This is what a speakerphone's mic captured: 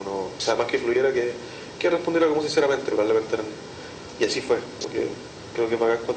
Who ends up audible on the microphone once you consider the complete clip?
echo only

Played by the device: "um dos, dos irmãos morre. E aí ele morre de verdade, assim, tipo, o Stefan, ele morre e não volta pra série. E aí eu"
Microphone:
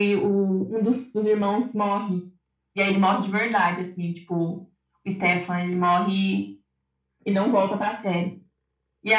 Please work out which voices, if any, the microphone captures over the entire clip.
echo only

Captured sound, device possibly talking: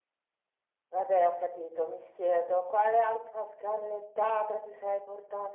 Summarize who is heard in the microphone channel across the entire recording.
echo only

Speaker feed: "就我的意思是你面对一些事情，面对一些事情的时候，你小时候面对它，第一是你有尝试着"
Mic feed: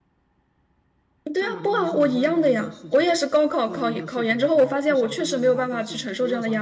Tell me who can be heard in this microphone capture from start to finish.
both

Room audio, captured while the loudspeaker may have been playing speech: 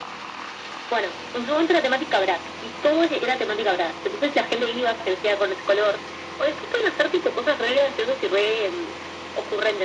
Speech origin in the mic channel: echo only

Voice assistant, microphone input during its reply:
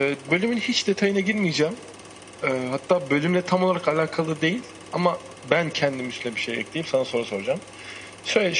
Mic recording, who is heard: echo only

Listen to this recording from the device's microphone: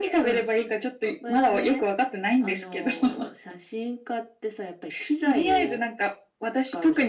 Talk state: echo only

